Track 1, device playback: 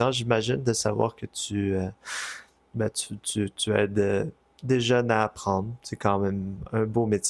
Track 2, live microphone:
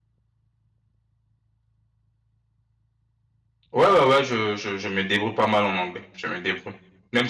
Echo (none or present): none